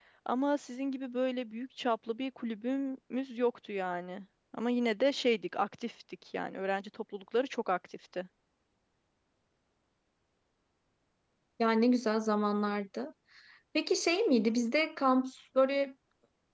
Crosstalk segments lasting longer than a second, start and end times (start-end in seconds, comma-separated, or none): none